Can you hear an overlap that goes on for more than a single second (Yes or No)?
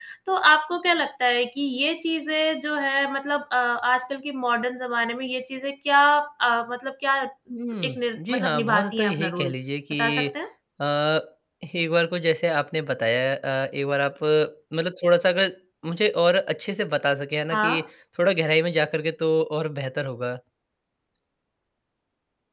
Yes